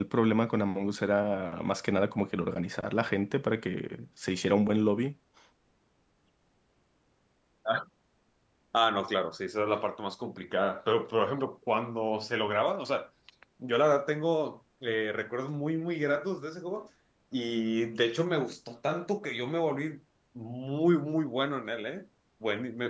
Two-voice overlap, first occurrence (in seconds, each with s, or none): none